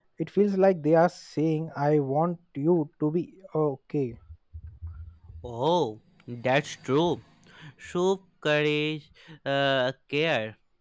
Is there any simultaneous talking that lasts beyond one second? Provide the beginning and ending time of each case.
none

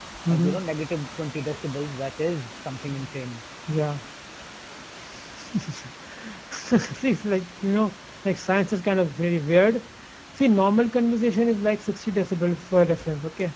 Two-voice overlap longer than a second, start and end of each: none

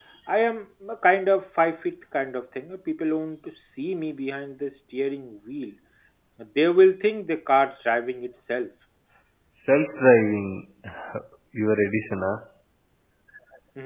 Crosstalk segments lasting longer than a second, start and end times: none

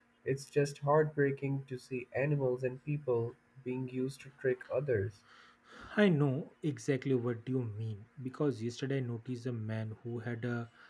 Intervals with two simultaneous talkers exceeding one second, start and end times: none

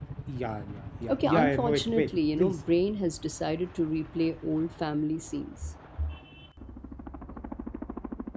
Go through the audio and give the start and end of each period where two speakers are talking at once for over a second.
1.1-2.6

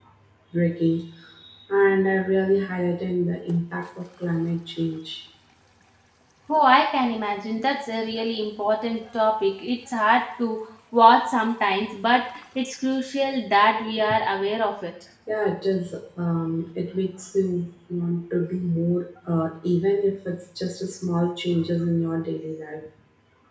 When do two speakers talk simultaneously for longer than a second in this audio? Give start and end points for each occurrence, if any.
none

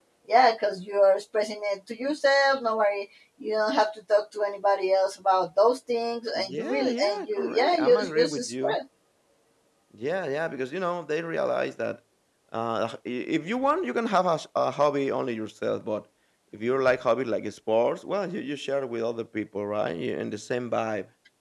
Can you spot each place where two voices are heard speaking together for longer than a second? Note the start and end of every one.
6.3-8.8

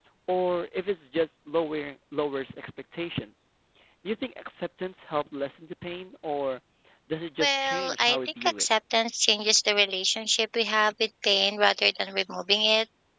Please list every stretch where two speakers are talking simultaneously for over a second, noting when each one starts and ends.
7.4-8.7

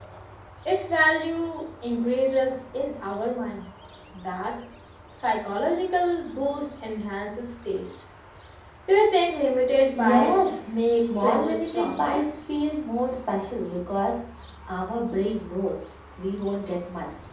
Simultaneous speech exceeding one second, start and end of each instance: 9.9-12.2

